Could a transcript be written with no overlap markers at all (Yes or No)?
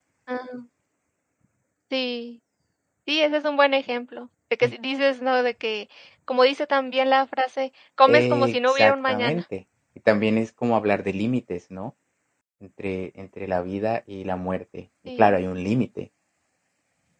No